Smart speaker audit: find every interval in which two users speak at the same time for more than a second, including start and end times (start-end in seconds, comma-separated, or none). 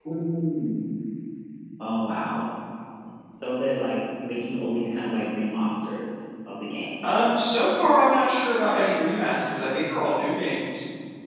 none